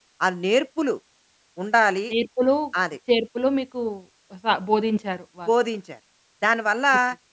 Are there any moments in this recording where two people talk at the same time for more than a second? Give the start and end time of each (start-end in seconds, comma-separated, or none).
none